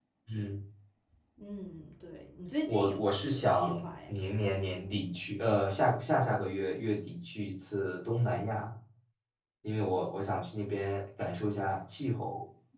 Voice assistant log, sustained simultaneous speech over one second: present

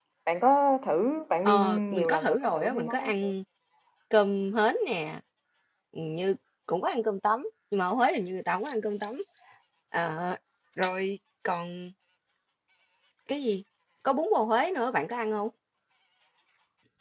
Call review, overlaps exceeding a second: present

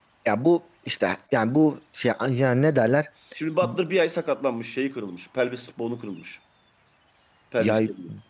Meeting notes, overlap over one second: none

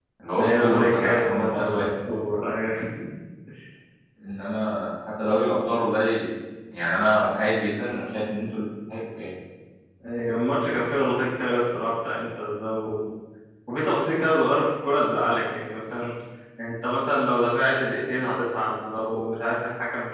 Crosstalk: present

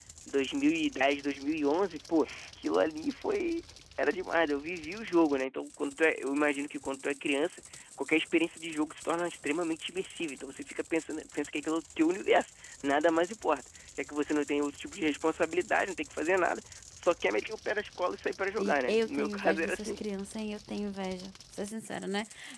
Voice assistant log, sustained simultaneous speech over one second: present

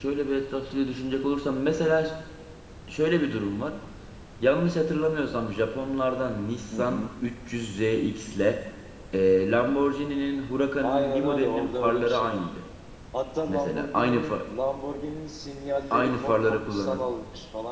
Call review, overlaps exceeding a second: present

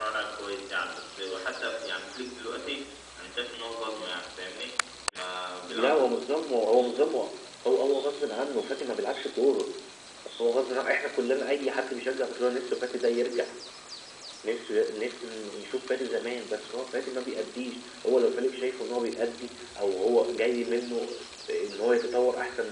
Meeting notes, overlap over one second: none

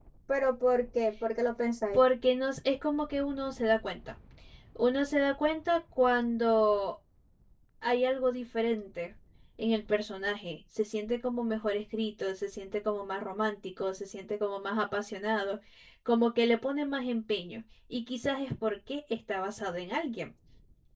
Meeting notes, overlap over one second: none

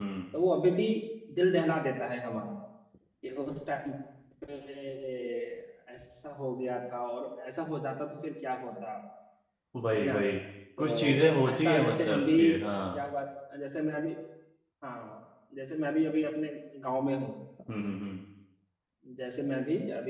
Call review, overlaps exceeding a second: present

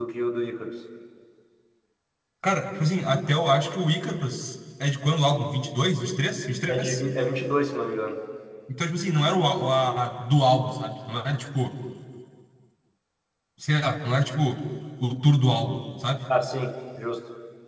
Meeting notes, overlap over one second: none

